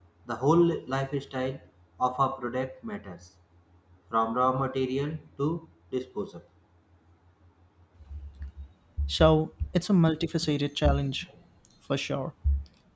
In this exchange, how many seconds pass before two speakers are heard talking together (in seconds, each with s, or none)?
none